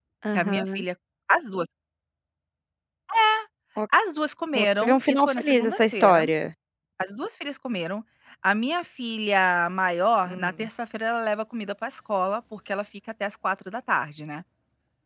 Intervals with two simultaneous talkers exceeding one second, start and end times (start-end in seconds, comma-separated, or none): 4.6-6.2